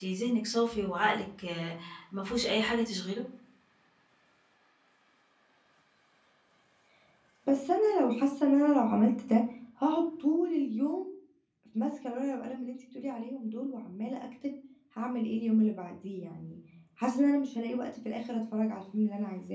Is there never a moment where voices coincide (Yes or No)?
Yes